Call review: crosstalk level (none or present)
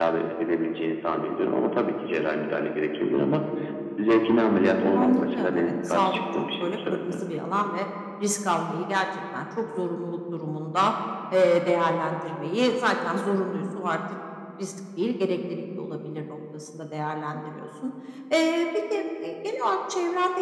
present